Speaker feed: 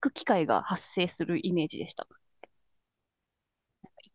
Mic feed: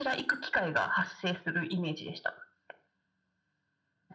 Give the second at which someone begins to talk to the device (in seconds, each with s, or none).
none